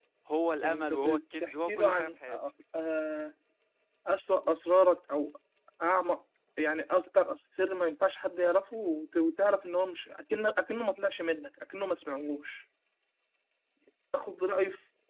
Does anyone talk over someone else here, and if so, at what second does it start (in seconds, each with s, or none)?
0.6 s